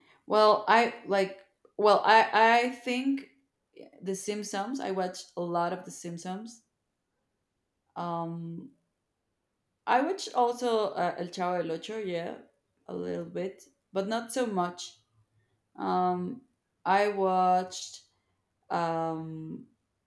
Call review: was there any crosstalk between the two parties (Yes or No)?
No